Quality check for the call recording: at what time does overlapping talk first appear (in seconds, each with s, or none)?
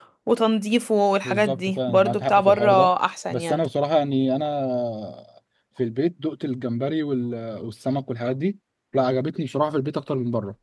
1.2 s